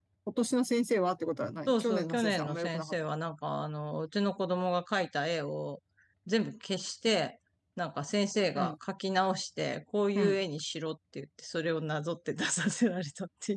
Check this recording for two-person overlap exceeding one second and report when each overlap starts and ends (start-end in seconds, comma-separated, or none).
1.7-2.9